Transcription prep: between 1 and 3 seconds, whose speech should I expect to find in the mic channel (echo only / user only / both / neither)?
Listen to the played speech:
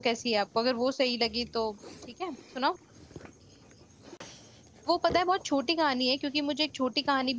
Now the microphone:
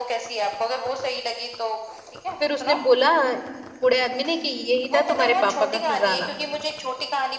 both